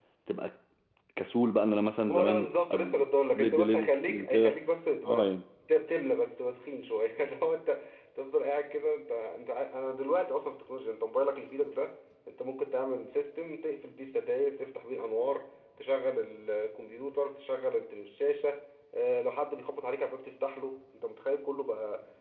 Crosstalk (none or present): present